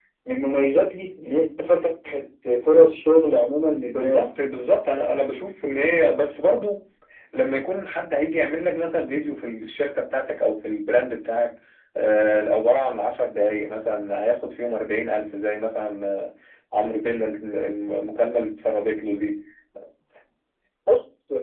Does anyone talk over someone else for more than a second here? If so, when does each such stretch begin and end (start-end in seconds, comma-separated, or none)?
none